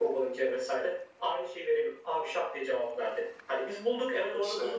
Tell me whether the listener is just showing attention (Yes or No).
Yes